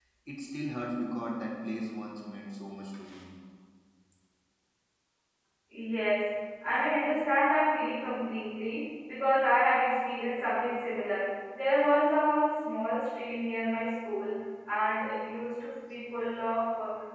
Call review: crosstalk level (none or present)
none